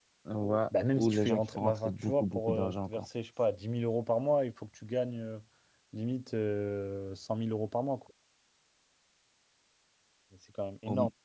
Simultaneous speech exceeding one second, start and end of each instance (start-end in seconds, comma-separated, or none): 0.9-3.1